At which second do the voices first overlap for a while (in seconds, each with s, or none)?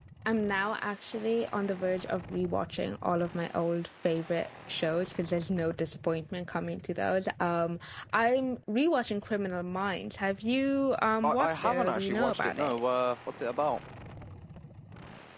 11.2 s